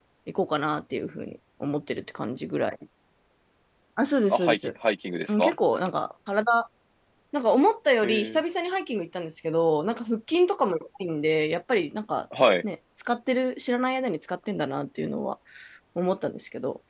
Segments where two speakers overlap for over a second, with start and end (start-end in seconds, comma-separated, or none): none